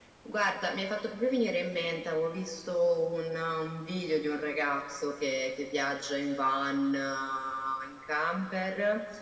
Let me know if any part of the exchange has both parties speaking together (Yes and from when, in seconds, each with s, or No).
No